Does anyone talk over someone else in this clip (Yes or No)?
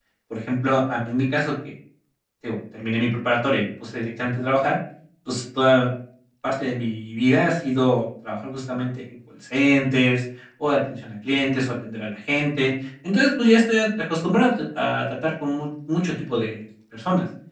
No